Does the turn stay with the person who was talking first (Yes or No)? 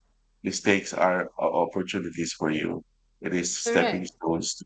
Yes